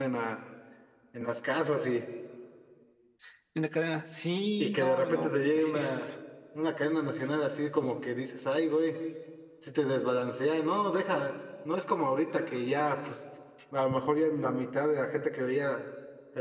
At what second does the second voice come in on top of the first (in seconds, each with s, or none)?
4.6 s